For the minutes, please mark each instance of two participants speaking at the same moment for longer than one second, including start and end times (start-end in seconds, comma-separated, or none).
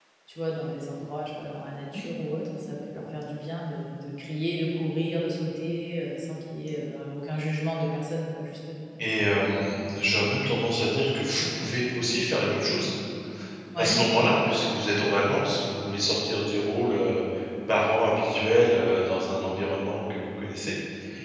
none